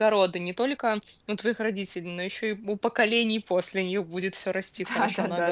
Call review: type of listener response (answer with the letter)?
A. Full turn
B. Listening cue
A